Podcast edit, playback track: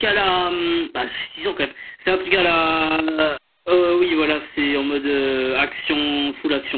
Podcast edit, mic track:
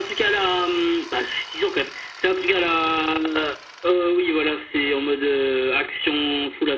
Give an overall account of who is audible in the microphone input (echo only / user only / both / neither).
echo only